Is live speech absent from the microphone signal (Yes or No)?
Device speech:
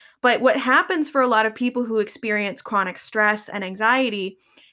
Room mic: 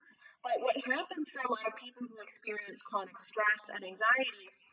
Yes